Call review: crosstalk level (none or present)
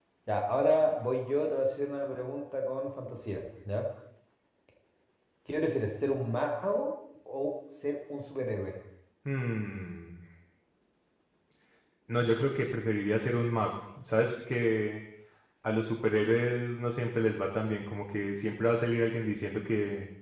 none